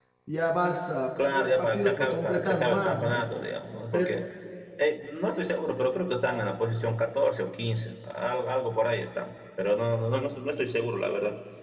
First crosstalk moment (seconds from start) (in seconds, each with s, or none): 1.3 s